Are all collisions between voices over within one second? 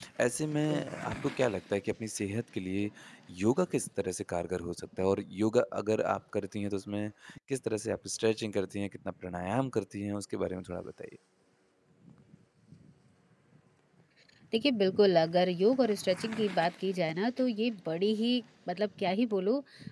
Yes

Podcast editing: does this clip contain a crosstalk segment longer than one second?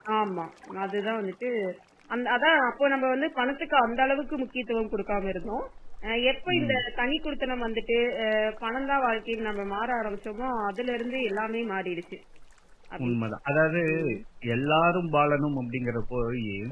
No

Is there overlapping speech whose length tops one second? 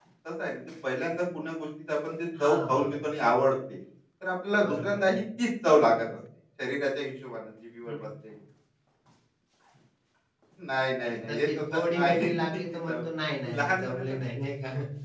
Yes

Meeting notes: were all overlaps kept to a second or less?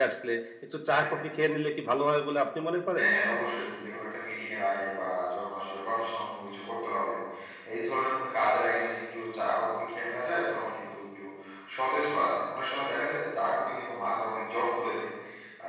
Yes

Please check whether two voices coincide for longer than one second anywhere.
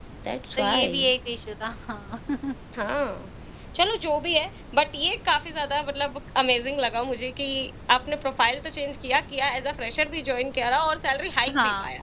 No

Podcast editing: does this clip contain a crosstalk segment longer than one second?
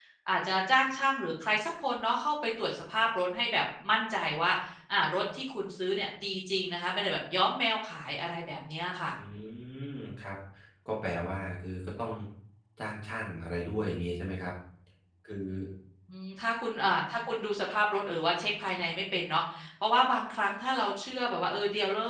No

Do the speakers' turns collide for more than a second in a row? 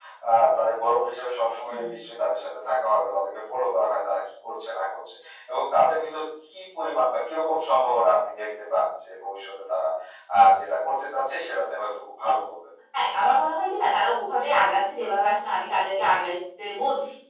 No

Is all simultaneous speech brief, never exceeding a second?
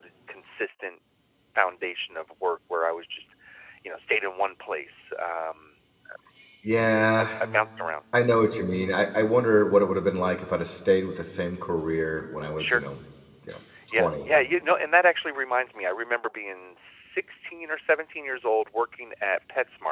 Yes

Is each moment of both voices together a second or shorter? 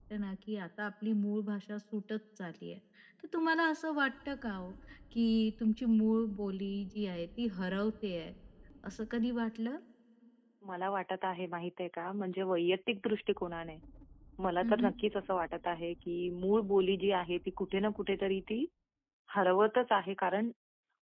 Yes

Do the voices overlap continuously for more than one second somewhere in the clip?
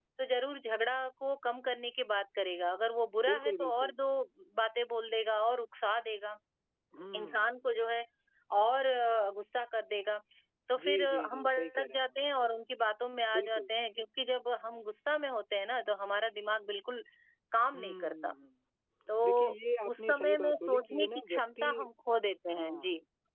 Yes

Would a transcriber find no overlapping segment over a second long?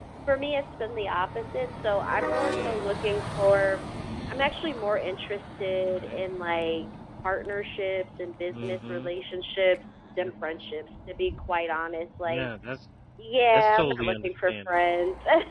No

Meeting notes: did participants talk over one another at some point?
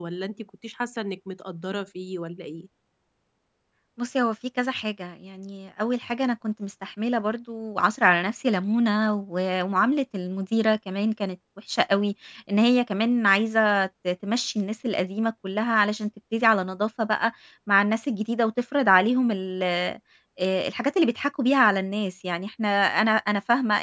No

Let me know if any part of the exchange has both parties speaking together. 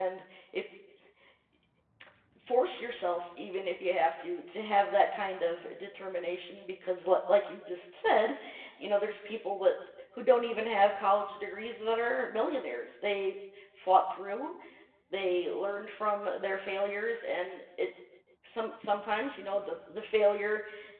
No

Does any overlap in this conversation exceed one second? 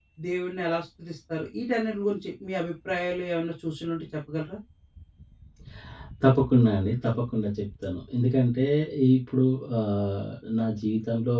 No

